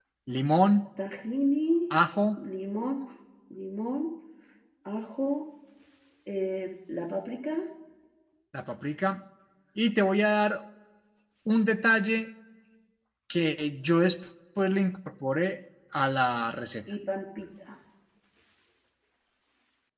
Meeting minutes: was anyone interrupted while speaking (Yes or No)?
No